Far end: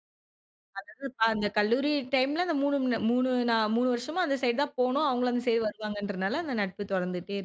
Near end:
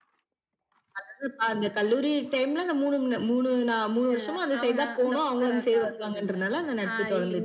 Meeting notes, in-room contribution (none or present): present